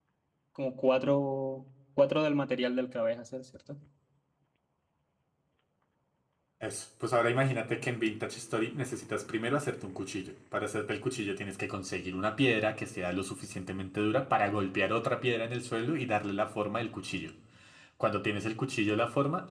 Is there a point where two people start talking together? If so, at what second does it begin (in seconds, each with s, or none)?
none